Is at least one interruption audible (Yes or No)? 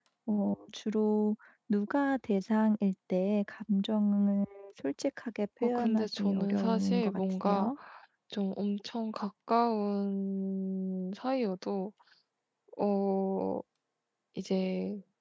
Yes